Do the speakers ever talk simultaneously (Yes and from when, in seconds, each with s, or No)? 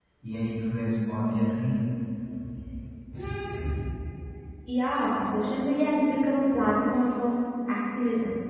No